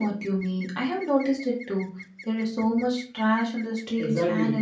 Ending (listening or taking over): taking over